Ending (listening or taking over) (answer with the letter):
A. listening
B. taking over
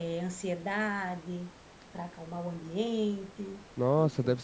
B